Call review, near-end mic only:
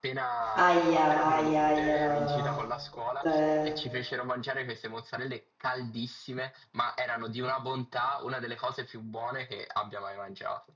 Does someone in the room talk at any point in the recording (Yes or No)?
Yes